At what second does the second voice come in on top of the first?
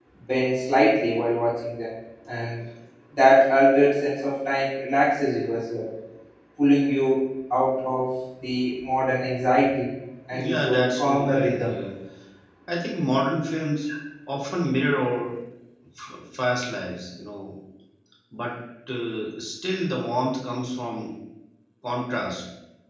10 s

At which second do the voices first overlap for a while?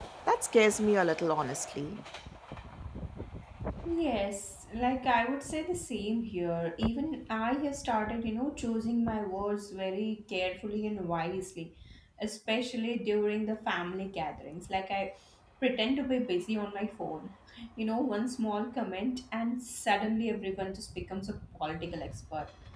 none

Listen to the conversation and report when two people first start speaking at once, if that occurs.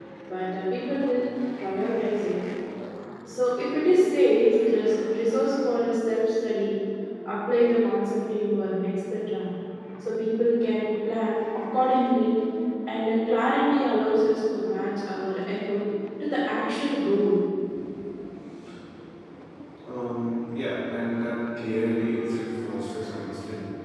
none

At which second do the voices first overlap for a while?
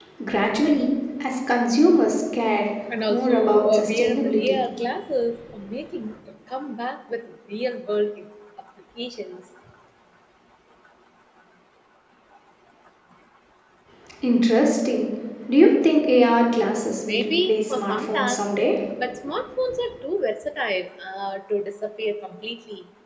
3 s

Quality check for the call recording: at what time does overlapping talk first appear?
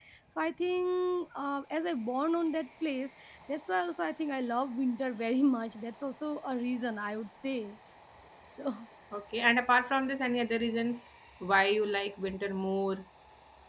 none

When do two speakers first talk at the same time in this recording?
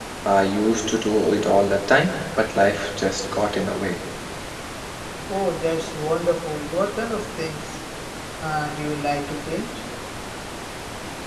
none

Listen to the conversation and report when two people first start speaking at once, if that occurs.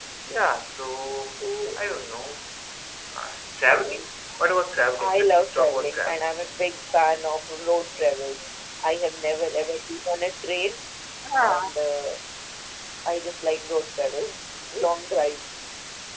5 s

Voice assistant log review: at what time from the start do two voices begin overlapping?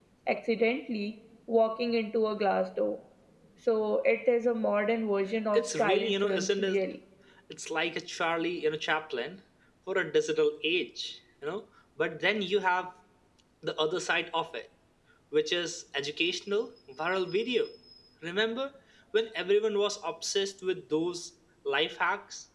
6 s

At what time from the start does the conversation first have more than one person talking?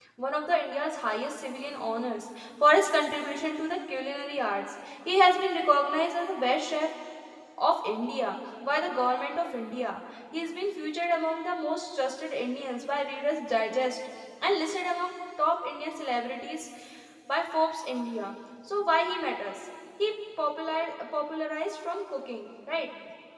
none

